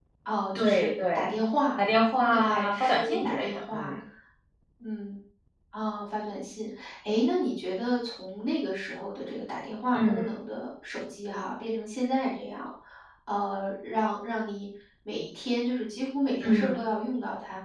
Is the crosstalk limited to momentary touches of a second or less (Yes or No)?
No